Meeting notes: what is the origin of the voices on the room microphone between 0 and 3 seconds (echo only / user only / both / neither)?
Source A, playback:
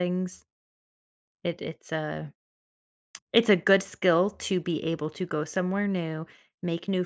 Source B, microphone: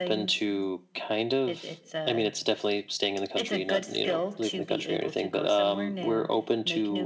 both